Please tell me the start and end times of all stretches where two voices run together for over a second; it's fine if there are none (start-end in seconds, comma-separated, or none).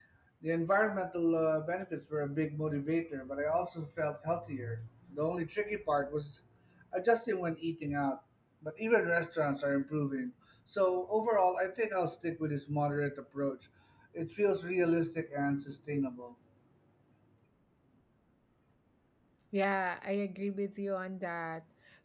none